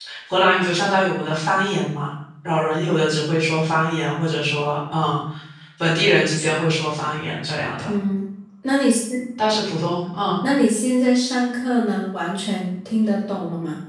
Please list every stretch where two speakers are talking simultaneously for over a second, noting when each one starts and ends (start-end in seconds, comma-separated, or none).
none